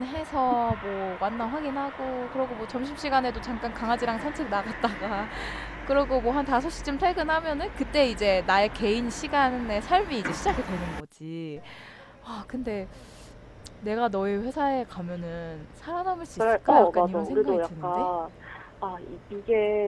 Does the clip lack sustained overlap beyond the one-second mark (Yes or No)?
No